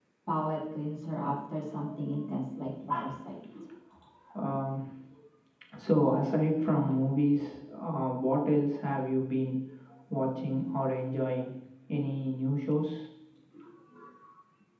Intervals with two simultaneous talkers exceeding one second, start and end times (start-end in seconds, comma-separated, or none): none